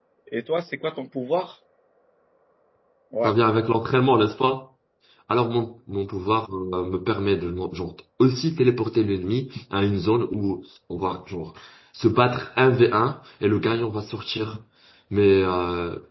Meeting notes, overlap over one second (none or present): none